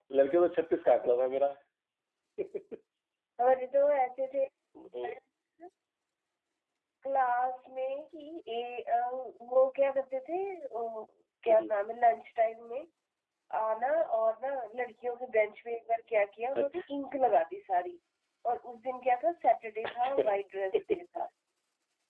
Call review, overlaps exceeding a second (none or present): none